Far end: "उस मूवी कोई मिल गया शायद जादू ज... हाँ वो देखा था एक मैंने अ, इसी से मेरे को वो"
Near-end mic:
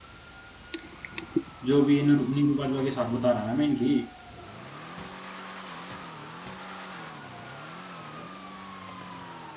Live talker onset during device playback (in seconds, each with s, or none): 1.7 s